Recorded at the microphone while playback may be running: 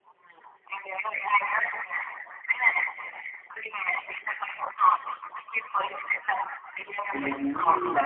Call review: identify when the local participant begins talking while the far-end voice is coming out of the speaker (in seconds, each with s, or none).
7.1 s